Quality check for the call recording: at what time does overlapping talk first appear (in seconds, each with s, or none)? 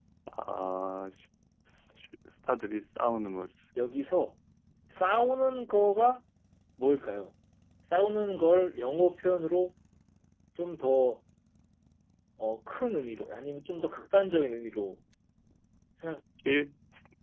none